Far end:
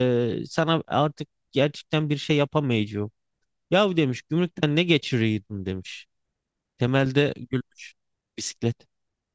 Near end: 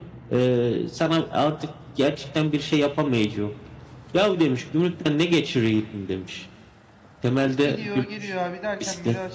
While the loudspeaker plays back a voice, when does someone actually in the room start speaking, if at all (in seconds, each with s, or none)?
7.6 s